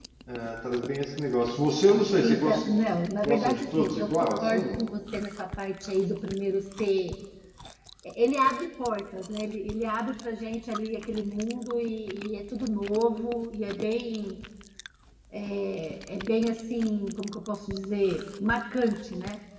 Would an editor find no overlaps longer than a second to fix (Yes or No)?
No